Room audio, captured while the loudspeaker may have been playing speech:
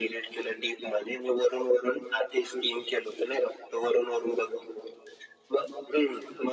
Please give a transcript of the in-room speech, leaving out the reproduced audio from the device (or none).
none